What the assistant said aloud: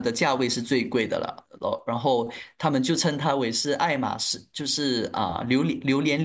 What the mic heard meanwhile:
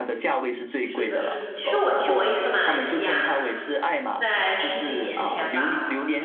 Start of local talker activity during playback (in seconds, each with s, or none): 0.8 s